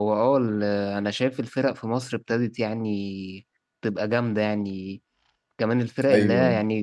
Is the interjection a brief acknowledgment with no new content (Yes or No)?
Yes